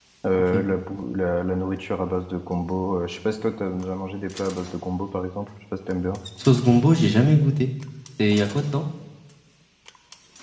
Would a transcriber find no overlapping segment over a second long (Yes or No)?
Yes